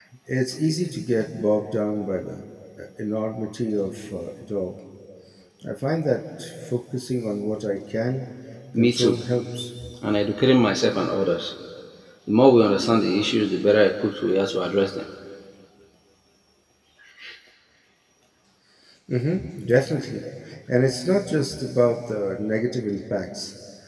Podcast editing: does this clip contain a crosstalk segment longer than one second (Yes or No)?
No